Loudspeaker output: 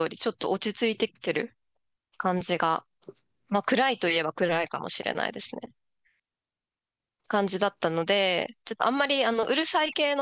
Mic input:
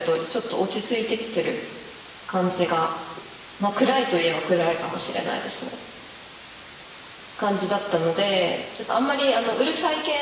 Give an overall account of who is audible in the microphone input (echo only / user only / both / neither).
echo only